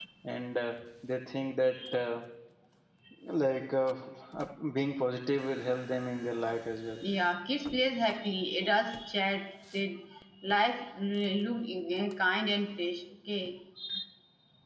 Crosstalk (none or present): none